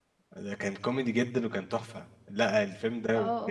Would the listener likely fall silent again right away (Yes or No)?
Yes